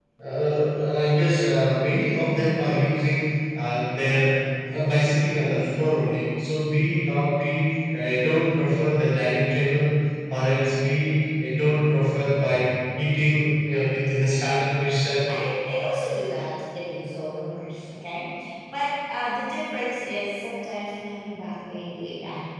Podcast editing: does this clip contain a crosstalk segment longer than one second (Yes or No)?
No